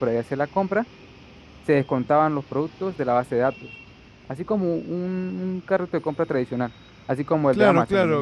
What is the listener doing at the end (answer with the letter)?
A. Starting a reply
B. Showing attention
A